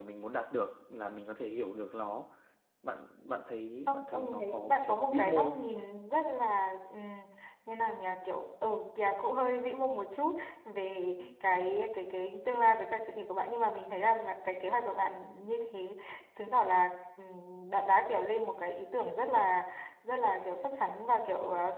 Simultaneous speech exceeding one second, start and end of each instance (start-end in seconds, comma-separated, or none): 3.9-5.6